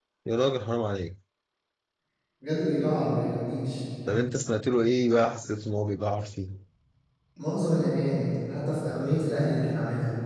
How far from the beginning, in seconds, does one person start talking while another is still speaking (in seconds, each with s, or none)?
none